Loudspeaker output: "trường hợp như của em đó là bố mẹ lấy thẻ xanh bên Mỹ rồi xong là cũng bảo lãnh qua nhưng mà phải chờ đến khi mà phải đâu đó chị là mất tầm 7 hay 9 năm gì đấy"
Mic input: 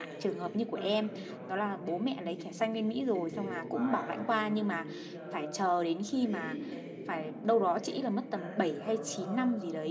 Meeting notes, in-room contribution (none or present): present